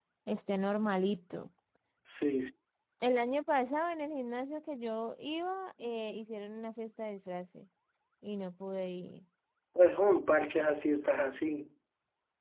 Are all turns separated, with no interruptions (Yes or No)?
Yes